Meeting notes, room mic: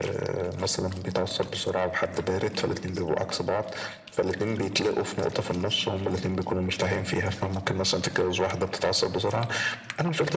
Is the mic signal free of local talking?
Yes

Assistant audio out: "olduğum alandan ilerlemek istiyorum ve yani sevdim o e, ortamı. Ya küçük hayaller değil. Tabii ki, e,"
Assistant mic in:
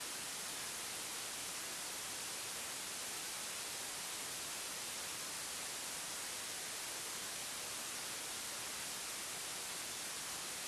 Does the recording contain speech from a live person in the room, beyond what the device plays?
No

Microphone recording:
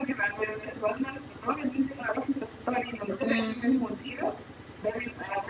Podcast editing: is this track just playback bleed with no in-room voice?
No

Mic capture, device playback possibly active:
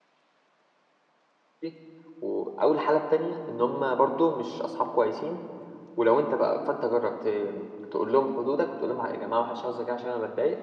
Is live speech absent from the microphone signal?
No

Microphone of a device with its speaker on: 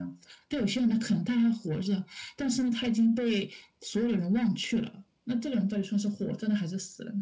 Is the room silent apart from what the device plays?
Yes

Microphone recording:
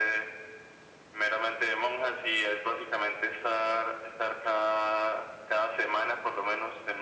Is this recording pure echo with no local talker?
Yes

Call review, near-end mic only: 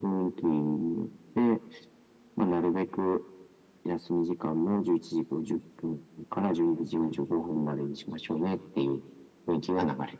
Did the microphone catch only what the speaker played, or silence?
Yes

